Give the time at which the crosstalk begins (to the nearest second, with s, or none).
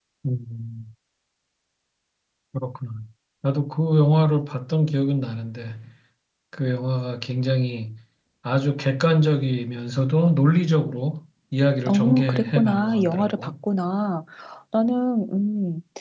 12 s